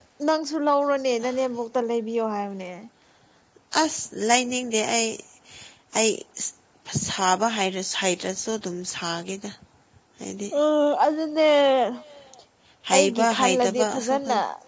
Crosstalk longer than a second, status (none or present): present